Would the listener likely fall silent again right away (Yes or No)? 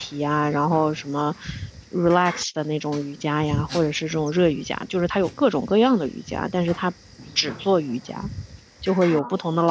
Yes